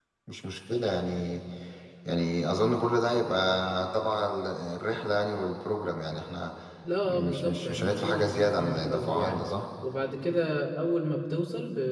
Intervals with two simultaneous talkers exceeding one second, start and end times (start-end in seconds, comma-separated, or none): 7.1-9.4